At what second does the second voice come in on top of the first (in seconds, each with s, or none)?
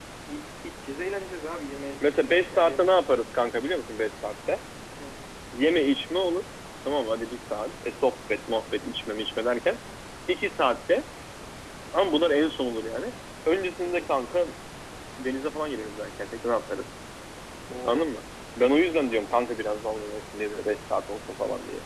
2.0 s